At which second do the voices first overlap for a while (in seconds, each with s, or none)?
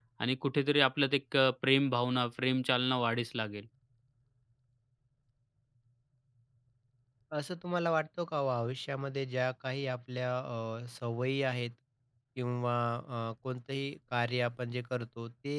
none